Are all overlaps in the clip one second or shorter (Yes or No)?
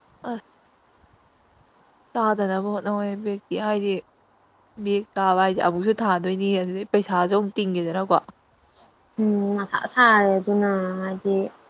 Yes